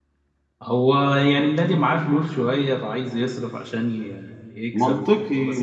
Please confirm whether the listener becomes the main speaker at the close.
Yes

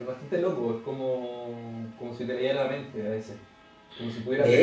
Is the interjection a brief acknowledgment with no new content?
Yes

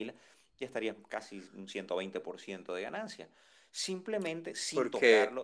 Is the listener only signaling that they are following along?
Yes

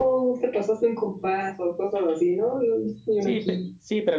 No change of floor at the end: No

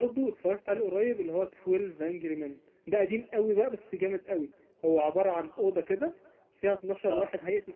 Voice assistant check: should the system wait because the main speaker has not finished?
Yes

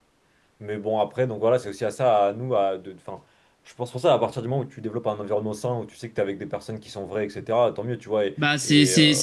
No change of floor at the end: No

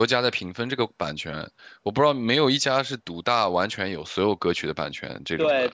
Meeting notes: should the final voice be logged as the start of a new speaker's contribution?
Yes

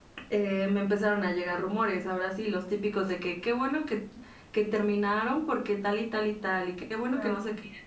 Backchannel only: Yes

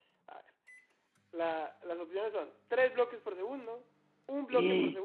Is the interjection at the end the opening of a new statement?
No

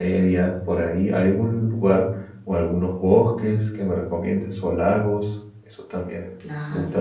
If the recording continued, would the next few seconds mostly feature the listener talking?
Yes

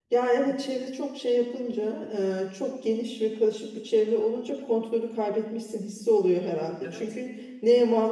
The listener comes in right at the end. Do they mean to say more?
No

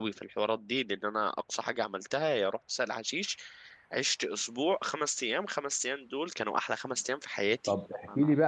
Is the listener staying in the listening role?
No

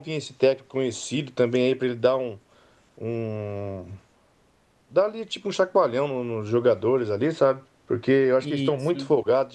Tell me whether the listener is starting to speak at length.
No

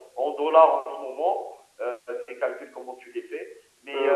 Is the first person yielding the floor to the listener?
No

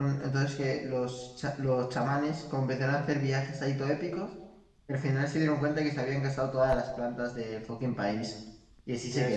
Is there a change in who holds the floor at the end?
Yes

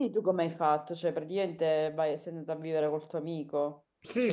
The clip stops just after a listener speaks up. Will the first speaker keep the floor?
No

